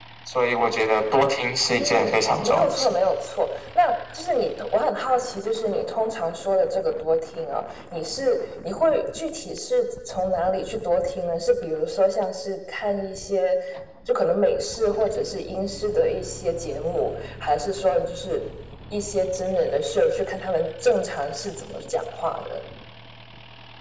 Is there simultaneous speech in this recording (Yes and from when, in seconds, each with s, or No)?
Yes, from 1.7 s